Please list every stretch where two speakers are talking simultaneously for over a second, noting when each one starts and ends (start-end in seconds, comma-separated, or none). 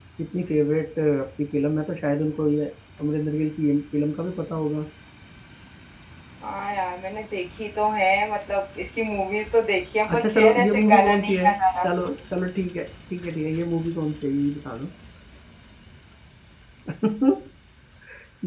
10.1-11.5